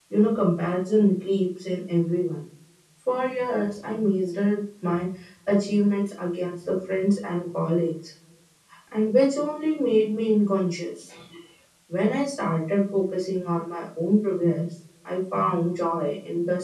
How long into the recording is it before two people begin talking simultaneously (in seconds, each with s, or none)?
none